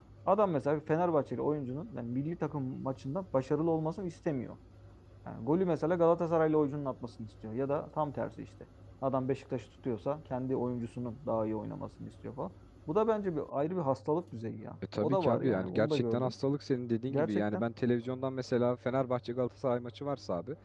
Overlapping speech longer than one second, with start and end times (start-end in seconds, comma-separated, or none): 15.0-16.3